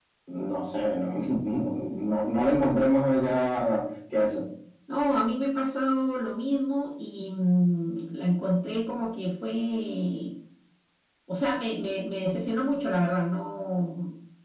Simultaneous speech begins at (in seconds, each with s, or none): none